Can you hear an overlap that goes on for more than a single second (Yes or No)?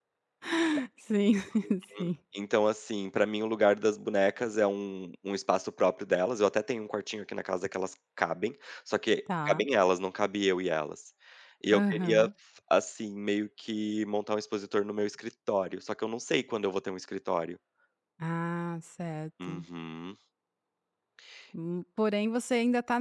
No